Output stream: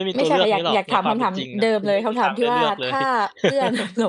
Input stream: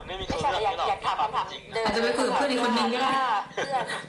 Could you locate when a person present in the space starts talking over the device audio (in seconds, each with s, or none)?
1.8 s